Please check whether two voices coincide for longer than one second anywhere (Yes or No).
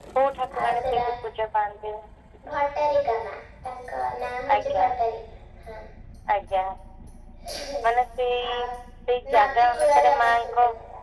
Yes